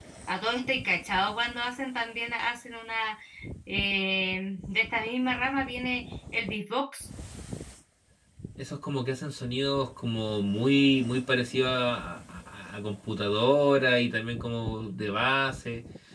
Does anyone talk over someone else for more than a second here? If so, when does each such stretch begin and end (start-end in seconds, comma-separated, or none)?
none